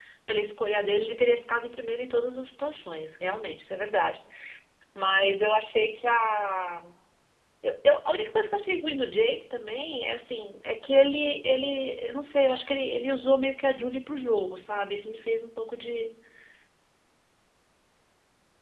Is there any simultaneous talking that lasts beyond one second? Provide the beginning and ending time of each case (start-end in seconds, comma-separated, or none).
none